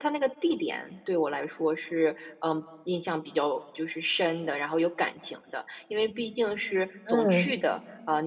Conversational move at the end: listening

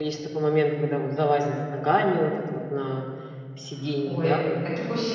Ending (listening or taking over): taking over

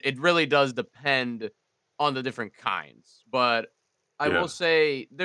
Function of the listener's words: listening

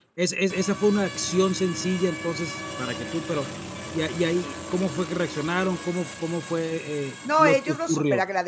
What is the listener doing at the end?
taking over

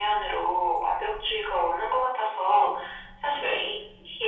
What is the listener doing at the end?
listening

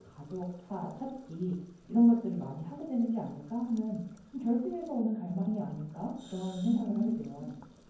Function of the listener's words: taking over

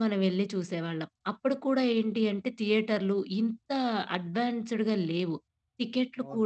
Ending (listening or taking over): listening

